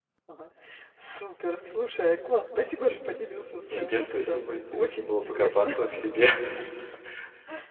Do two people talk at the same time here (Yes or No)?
Yes